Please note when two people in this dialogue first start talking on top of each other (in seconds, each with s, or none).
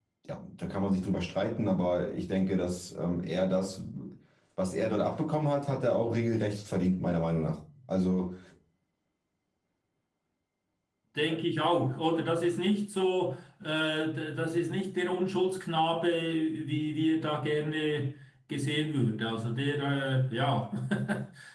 none